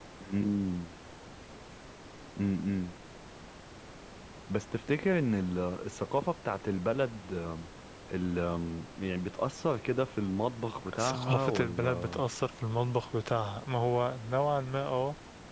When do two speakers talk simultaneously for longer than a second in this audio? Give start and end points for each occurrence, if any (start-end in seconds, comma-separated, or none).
11.0-12.2